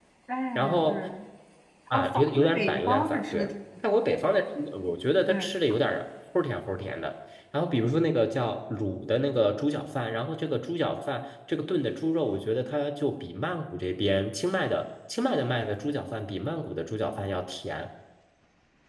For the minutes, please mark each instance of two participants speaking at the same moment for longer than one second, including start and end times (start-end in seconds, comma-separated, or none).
1.9-3.5